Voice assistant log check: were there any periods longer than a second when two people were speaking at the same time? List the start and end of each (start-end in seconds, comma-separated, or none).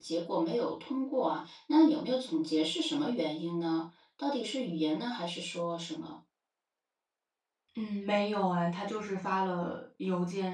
none